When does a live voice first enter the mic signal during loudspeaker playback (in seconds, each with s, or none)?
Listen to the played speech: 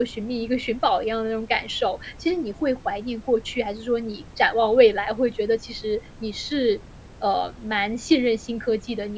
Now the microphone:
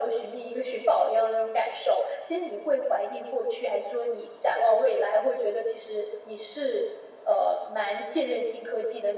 none